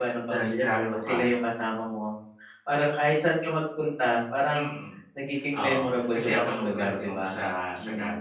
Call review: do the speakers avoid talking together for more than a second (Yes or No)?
No